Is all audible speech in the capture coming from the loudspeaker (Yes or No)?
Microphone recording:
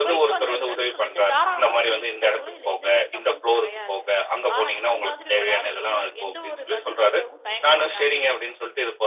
No